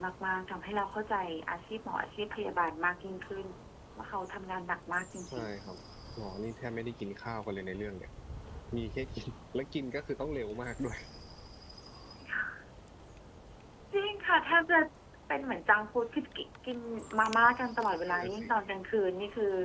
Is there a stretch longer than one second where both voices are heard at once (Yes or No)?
No